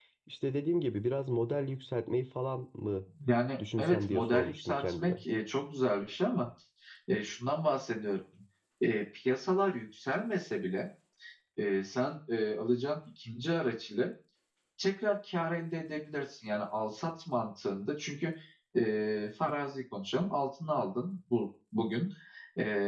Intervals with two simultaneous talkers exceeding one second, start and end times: 3.8-5.1

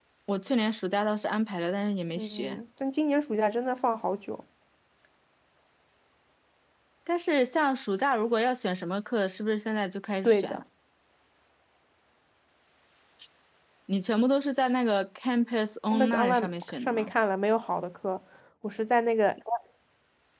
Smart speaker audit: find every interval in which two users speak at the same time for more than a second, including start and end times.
15.9-17.1

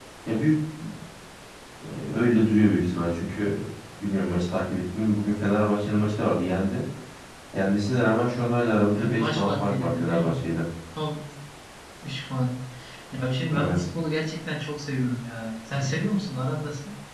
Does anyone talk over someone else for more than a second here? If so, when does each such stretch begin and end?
8.9-10.4

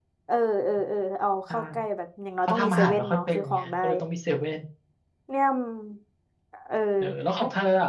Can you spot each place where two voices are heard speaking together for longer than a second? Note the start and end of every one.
2.5-3.7

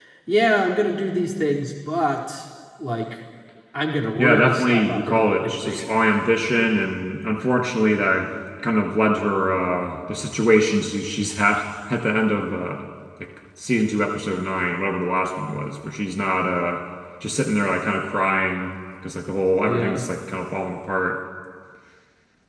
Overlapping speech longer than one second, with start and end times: 4.2-5.9

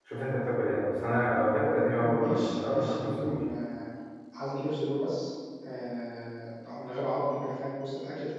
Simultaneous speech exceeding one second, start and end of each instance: 2.0-3.4

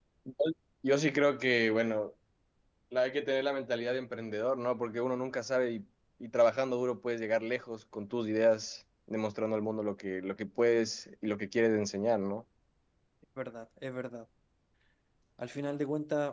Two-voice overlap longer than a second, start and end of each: none

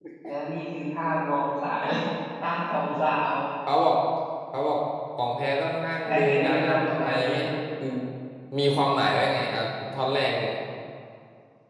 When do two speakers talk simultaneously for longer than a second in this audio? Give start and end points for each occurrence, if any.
6.0-7.5

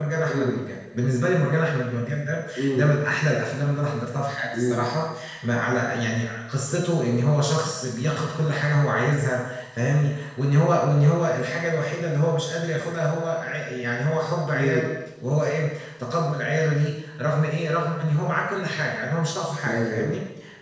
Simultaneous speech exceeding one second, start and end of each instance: none

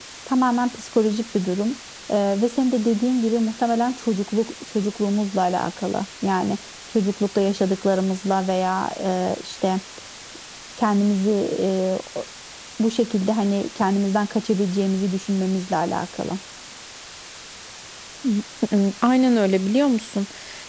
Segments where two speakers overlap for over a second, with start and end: none

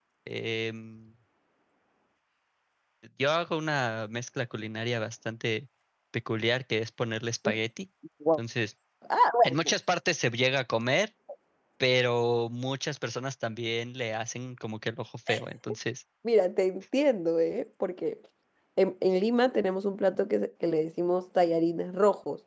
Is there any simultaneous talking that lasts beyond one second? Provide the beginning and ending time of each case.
none

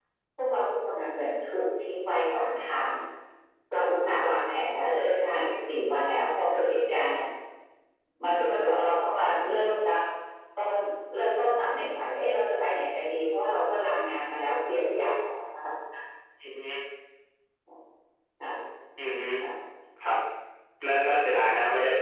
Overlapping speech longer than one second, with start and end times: none

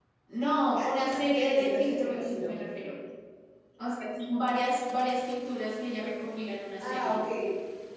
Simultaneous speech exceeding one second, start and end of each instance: 0.7-2.6

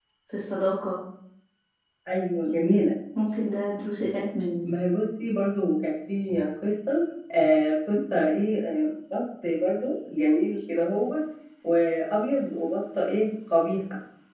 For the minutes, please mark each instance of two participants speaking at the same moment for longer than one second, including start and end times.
none

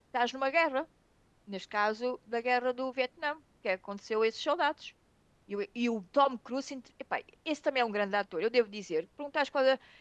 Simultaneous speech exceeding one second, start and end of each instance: none

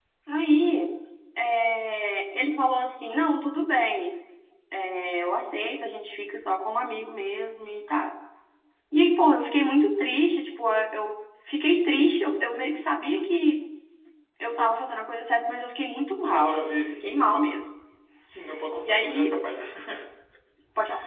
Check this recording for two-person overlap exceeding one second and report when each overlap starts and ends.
16.3-17.5

